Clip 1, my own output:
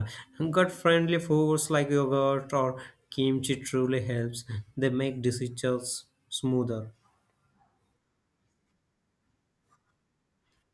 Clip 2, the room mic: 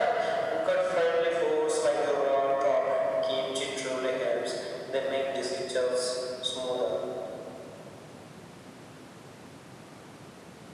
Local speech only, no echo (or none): none